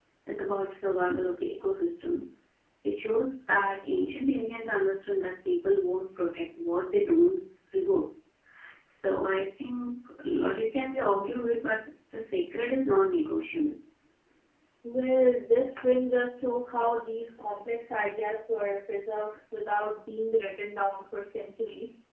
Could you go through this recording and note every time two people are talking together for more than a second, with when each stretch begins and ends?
none

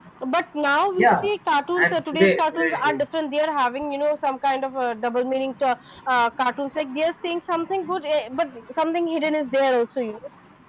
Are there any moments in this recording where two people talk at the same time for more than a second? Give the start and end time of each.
1.8-3.0

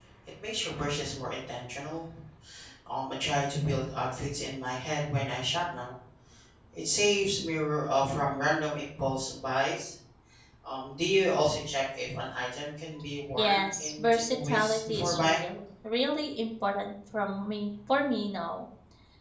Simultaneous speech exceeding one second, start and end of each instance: 13.4-15.4

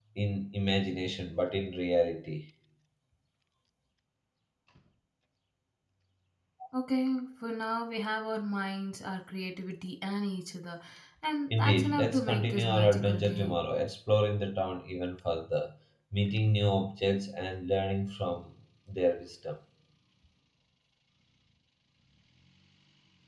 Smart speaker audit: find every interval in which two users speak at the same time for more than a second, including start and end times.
11.5-13.6

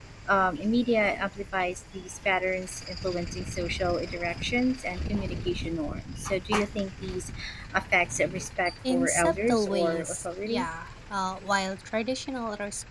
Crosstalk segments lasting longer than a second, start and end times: 8.9-10.7

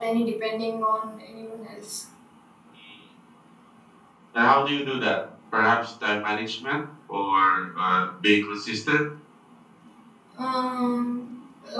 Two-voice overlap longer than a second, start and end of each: none

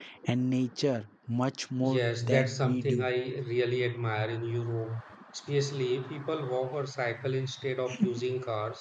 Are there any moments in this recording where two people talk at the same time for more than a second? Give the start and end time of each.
1.8-3.1

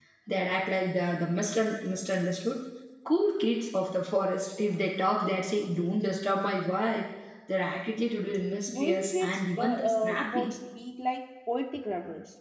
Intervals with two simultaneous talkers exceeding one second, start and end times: 8.7-10.5

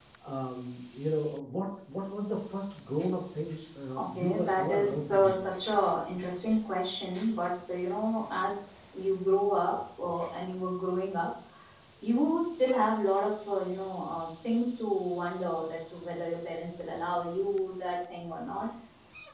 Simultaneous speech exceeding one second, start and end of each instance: 3.9-5.3

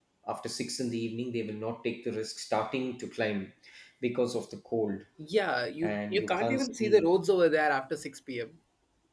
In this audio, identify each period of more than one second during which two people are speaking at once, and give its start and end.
5.8-7.1

